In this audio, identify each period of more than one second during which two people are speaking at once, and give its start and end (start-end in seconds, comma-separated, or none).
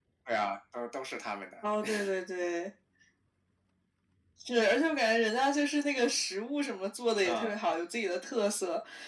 none